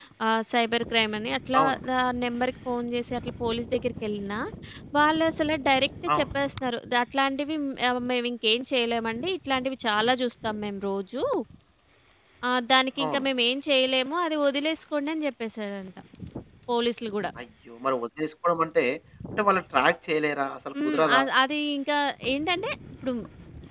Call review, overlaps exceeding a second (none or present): none